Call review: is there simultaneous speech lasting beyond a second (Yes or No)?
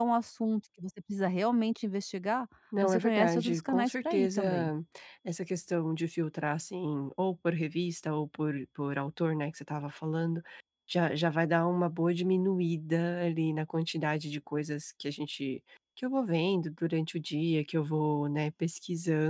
Yes